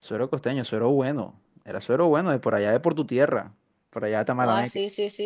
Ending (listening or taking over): taking over